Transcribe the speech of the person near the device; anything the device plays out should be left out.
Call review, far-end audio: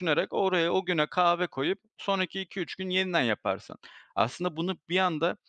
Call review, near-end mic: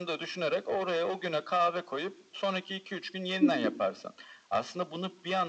Hı hı.

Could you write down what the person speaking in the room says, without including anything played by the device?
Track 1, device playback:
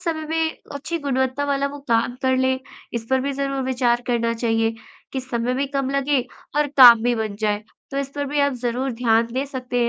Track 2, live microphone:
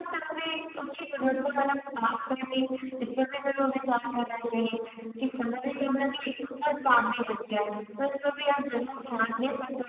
none

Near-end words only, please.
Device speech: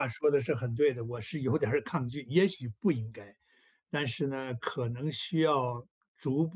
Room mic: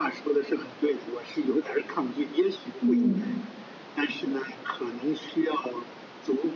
嗯，

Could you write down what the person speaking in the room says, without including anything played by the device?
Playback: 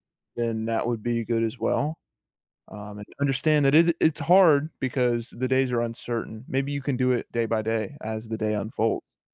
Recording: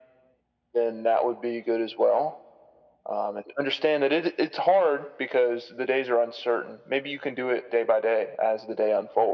none

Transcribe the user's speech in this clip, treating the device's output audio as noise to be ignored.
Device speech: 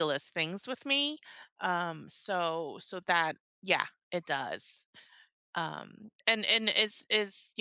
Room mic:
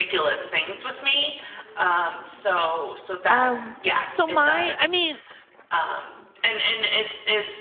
Um, so my I mean,

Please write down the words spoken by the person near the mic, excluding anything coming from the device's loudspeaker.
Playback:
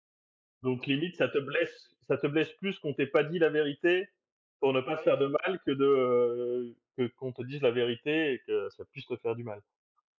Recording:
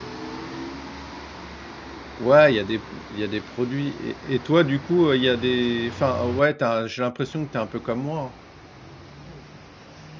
Ouais, il y a des il y a des produits et et toi, du coup, heu, il y a des enfin, ouais, tu j'ai l'impression que tu es un peu comme moi, hein.

